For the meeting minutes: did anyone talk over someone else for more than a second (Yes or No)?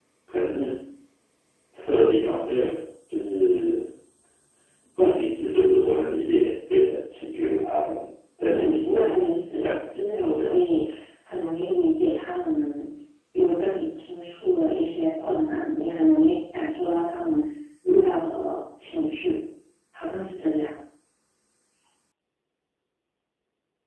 Yes